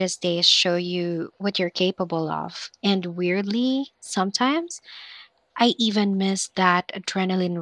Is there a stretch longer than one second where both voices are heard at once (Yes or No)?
No